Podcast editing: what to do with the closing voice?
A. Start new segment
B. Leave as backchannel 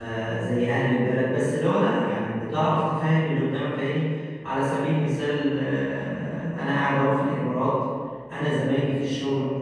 B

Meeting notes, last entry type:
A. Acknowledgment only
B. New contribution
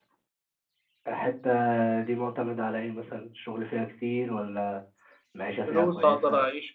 B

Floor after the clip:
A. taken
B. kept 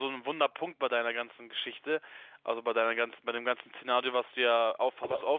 B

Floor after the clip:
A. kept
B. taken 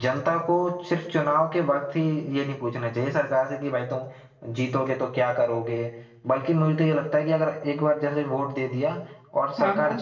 A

